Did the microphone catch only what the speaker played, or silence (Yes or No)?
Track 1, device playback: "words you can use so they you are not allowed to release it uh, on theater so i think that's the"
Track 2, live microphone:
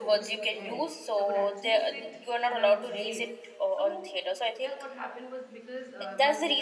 No